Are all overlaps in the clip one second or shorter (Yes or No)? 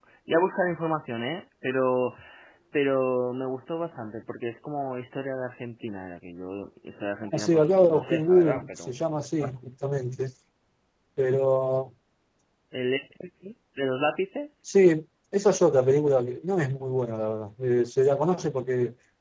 No